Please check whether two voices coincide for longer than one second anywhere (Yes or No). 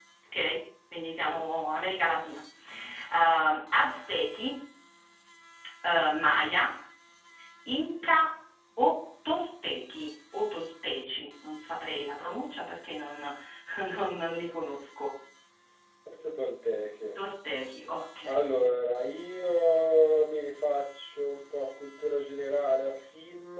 No